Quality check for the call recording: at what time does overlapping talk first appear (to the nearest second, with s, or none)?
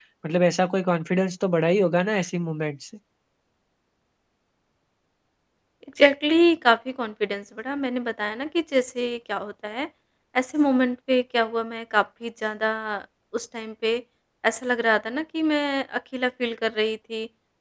none